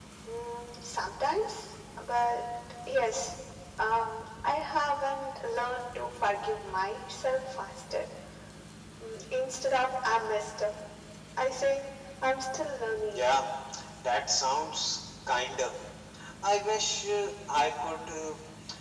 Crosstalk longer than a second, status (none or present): none